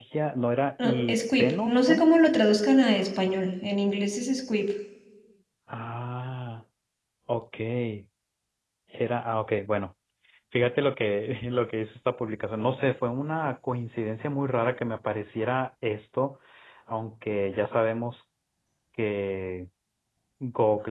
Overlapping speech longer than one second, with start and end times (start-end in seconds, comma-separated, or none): 0.8-2.1